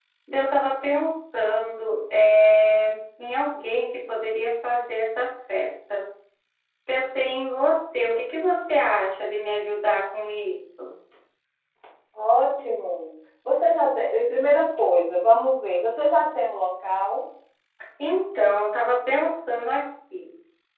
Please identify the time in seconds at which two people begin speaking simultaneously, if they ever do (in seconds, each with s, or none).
none